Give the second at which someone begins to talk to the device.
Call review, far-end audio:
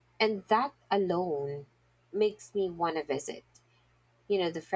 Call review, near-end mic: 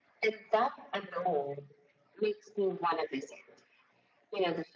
none

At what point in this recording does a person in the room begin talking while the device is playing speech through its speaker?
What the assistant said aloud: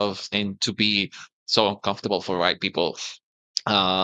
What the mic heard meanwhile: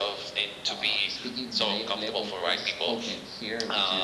1 s

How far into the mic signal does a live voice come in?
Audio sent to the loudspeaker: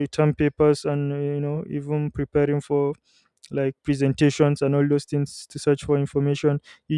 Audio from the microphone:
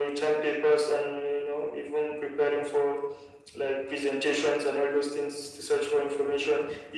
none

